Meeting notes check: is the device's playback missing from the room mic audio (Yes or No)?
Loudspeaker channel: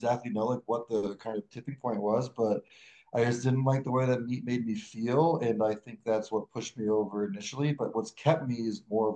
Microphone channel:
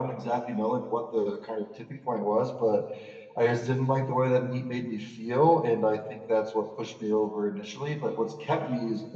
No